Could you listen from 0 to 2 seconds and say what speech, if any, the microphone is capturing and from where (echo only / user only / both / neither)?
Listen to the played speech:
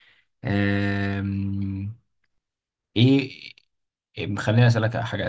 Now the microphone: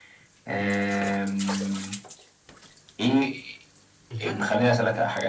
echo only